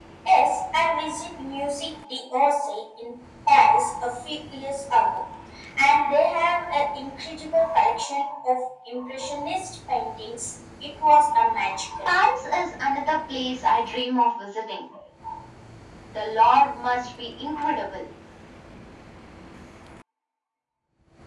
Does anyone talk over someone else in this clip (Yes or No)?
No